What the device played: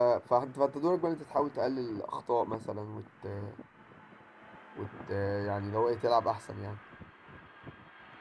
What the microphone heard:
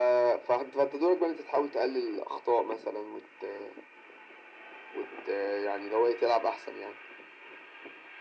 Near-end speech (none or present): none